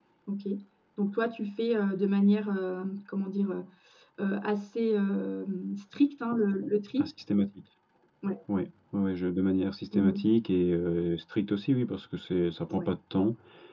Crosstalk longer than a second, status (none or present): none